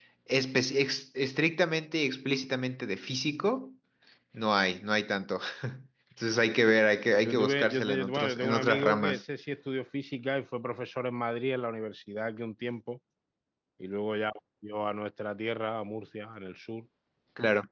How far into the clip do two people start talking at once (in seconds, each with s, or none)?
7.2 s